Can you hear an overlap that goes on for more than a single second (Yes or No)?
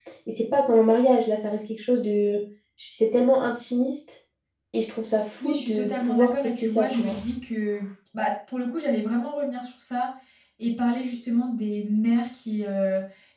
Yes